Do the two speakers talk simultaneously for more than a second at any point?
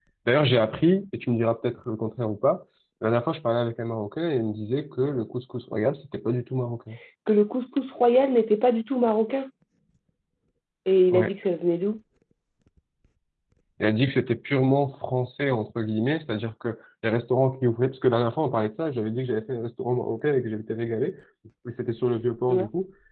No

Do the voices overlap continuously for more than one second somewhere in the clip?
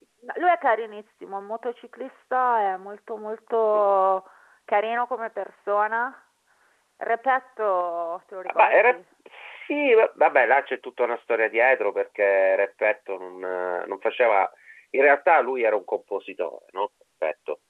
No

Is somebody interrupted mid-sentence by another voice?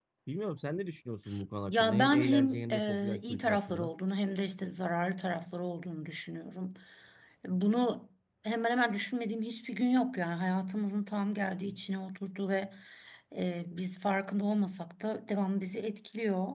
Yes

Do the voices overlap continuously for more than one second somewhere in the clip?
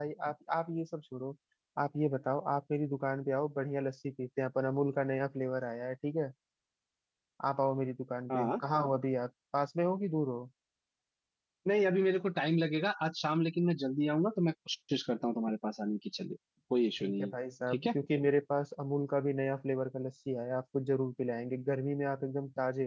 No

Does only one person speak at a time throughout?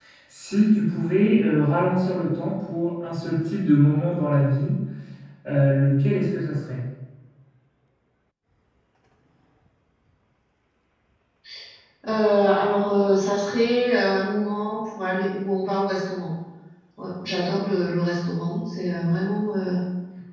Yes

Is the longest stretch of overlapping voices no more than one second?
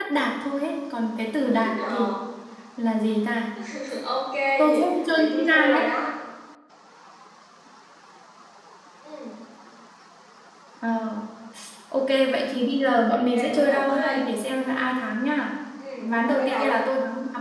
No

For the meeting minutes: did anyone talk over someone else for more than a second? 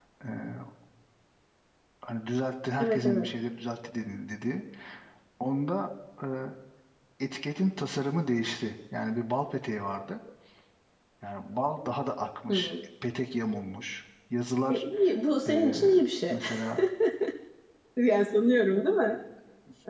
No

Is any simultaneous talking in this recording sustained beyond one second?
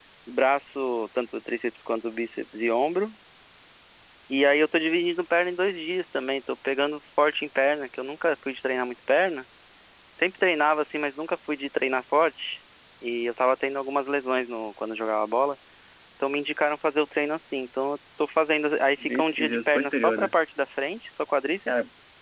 Yes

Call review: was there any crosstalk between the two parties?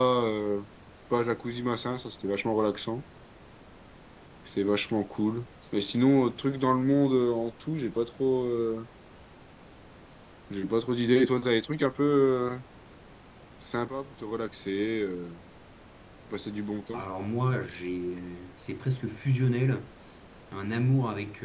No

